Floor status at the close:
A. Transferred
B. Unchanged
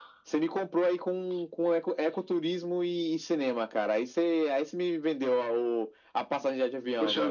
A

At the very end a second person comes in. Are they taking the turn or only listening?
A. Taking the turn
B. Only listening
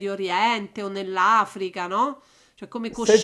A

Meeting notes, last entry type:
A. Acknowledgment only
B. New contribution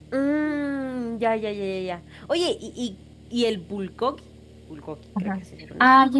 B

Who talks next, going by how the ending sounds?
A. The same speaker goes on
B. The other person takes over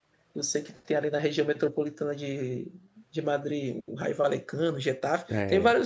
A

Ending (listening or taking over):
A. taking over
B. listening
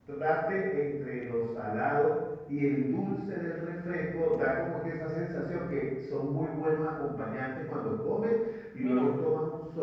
B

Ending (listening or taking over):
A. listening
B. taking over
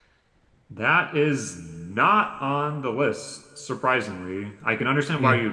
A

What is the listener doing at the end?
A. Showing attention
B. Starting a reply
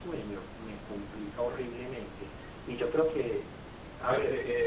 B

